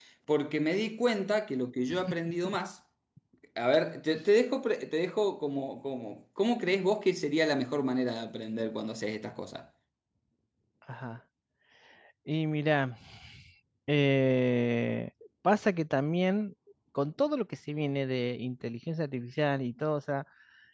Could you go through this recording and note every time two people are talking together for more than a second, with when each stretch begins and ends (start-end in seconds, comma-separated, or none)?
none